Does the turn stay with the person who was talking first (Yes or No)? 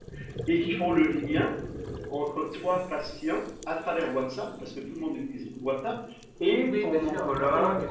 No